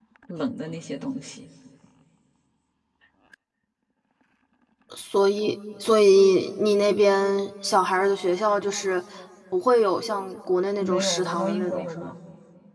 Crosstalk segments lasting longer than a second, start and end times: 10.8-12.1

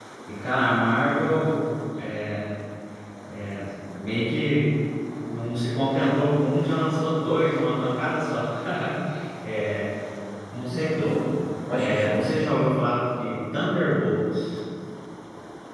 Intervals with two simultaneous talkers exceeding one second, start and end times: none

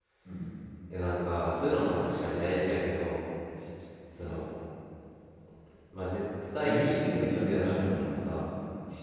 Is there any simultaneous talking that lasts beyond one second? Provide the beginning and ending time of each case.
6.6-8.1

